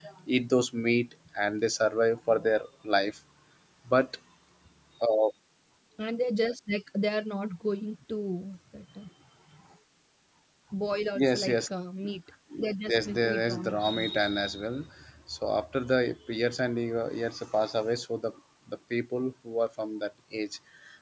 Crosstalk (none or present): present